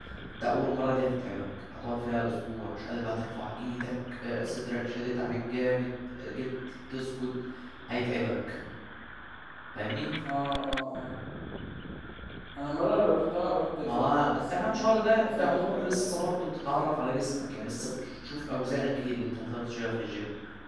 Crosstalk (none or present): present